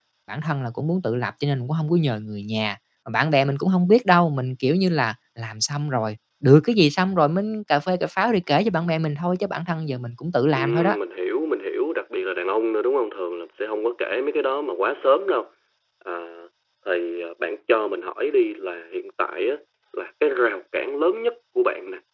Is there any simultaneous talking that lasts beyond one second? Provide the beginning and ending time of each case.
none

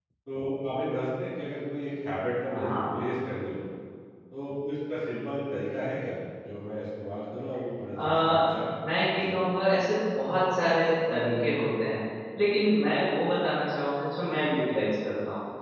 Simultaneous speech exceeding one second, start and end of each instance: none

